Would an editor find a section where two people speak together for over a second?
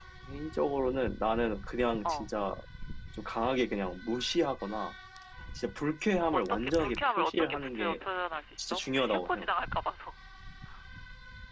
Yes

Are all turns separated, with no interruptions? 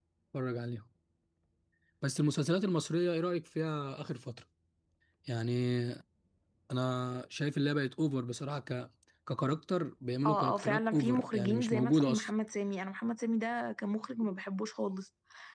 No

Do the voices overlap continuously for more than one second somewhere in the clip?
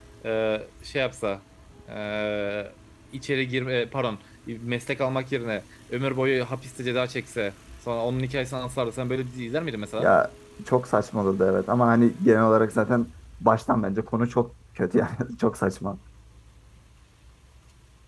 No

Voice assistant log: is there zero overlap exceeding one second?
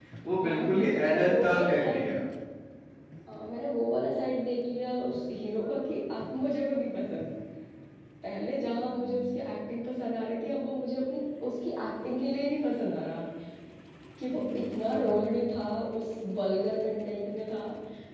No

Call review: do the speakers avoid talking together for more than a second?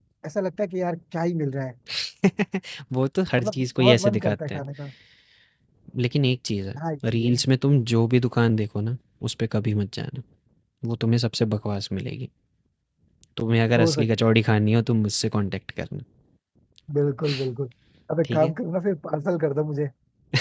No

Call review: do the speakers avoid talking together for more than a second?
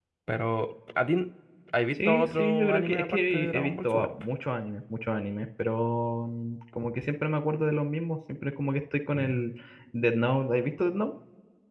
No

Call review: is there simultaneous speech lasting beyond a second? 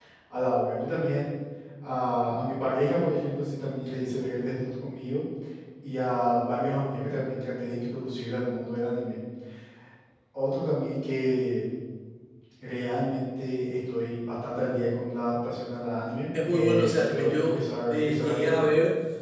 Yes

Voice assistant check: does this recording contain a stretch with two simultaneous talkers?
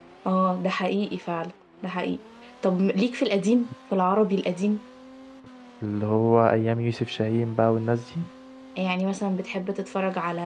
No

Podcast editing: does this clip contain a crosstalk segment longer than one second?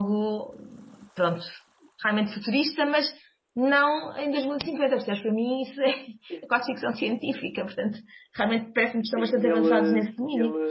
Yes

